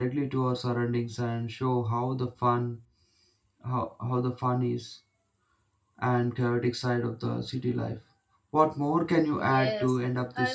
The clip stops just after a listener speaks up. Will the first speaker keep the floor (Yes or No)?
No